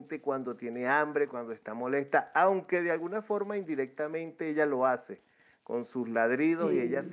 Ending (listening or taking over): listening